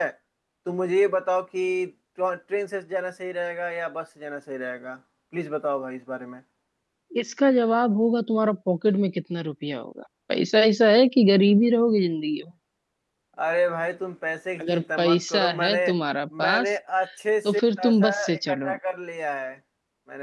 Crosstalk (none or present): present